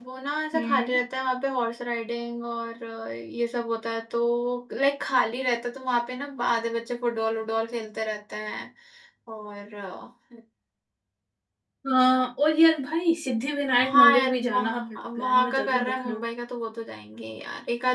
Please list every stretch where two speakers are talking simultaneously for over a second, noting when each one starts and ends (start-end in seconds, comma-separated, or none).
13.9-16.2